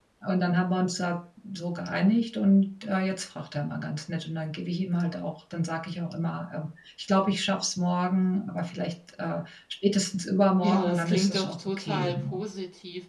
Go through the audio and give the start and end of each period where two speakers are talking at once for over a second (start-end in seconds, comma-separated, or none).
10.6-12.4